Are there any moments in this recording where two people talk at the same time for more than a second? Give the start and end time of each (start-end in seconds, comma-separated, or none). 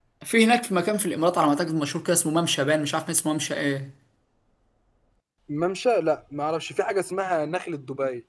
none